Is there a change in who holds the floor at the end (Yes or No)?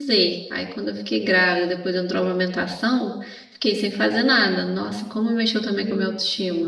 Yes